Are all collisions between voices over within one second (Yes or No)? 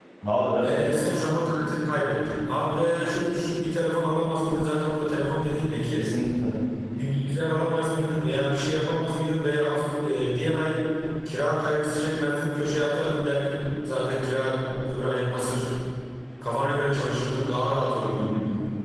Yes